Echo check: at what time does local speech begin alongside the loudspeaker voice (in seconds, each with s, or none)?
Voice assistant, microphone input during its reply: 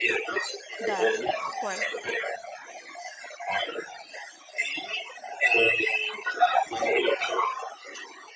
0.8 s